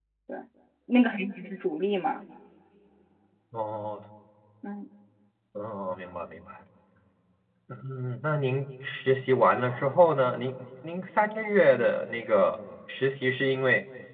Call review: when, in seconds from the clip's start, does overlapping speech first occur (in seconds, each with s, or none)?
none